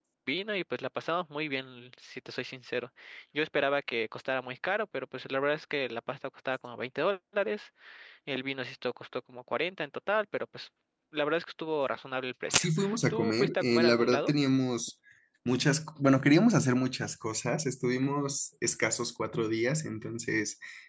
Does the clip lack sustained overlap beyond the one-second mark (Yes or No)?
No